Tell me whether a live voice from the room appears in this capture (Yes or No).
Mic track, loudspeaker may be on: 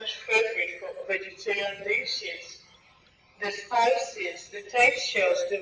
No